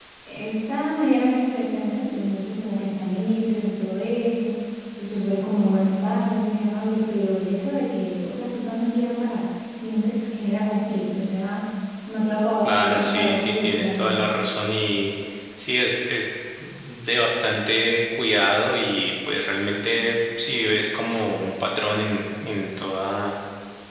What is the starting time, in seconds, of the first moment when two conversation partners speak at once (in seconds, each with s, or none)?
12.6 s